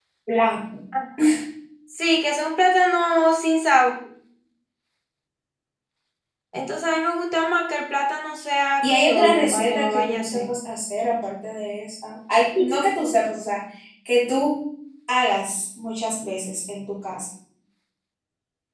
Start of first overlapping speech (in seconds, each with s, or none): 8.8 s